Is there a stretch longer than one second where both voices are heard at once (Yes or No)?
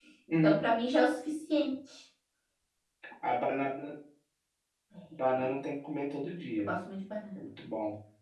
No